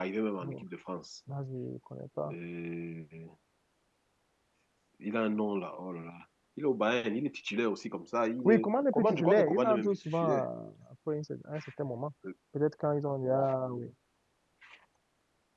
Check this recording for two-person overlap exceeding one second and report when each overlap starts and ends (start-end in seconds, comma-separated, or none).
8.4-10.5